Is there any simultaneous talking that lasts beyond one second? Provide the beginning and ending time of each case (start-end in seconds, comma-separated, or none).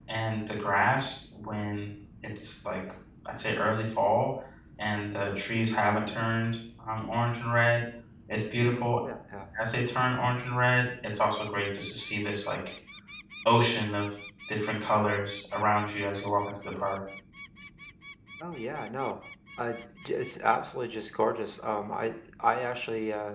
none